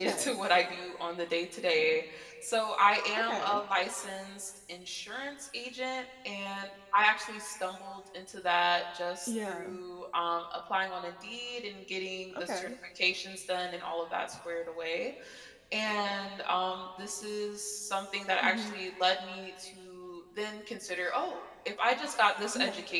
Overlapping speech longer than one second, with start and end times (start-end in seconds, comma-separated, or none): none